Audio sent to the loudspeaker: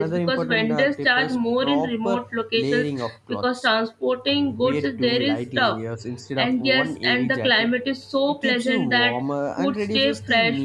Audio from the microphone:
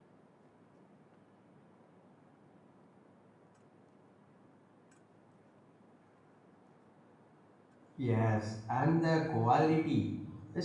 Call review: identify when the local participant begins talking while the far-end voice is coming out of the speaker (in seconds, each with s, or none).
8.0 s